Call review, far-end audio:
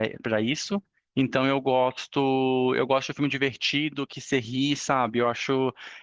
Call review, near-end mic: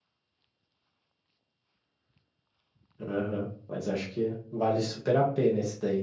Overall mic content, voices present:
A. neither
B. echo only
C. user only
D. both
C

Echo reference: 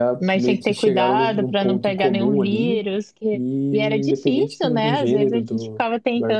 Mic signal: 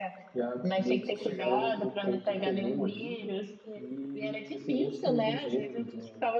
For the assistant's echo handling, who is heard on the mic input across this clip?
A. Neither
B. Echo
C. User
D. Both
B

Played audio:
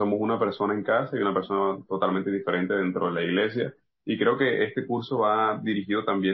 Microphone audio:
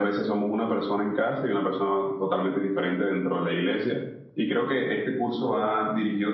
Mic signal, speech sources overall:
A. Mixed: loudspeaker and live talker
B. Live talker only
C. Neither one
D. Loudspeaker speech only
D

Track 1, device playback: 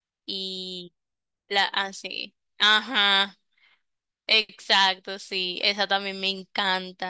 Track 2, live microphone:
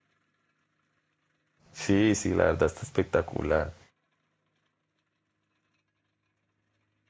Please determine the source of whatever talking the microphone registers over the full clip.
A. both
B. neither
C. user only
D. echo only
C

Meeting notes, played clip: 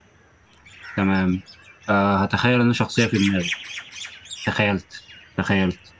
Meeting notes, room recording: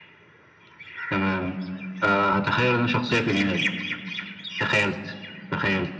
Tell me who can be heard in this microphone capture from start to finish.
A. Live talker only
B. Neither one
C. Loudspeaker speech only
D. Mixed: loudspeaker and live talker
C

